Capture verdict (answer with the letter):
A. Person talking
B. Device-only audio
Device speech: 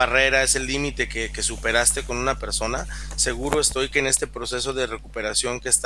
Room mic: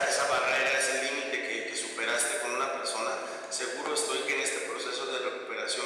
B